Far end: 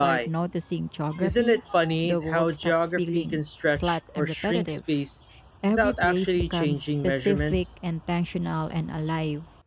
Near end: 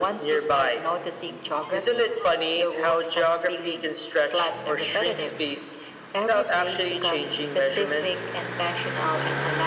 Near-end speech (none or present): none